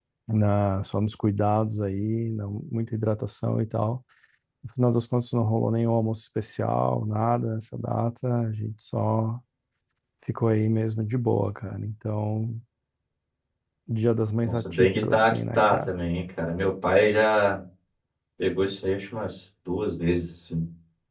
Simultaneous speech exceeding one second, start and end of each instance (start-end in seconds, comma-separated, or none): 14.4-15.9